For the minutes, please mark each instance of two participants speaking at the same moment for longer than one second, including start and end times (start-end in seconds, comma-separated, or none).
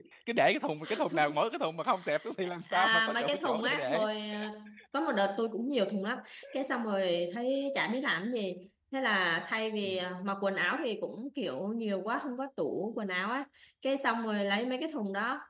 2.7-4.0